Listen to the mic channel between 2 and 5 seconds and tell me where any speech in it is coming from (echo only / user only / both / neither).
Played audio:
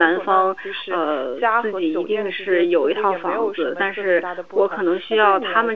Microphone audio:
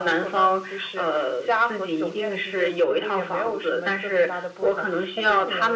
echo only